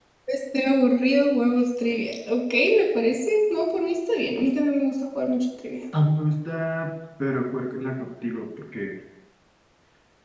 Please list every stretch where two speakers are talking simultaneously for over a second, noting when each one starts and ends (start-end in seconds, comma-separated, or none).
none